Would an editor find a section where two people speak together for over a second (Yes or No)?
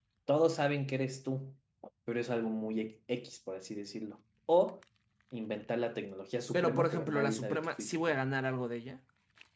Yes